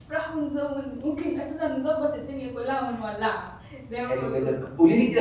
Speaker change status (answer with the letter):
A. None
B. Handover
B